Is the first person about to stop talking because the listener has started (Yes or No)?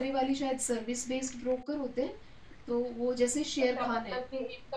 Yes